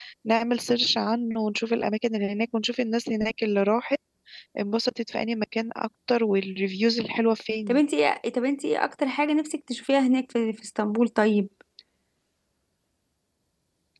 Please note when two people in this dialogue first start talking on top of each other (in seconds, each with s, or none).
none